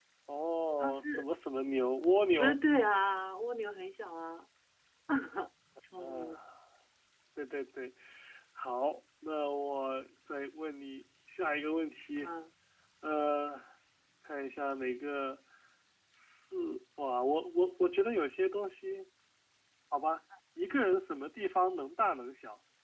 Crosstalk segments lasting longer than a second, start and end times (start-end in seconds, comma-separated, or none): none